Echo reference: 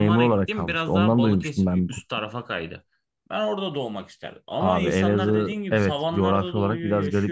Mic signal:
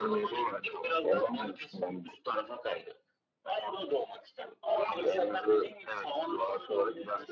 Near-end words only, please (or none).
none